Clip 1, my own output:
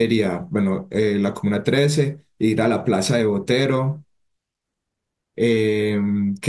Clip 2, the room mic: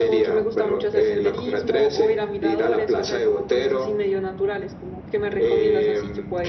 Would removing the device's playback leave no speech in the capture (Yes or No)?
No